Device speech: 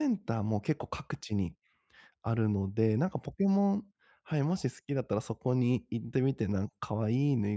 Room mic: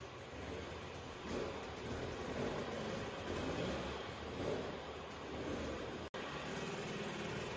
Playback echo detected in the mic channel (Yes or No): No